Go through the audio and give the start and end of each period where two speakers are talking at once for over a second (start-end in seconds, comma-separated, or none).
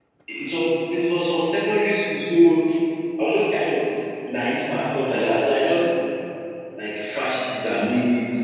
none